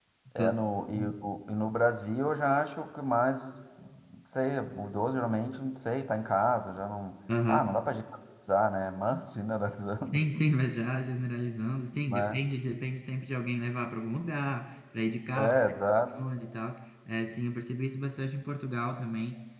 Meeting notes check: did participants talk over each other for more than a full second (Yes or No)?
No